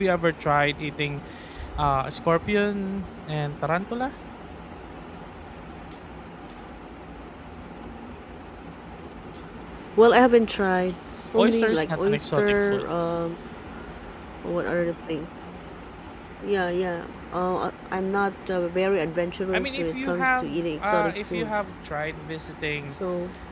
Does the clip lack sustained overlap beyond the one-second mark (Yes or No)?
No